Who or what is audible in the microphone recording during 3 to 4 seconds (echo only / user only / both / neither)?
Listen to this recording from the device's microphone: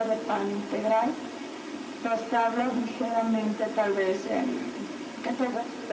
both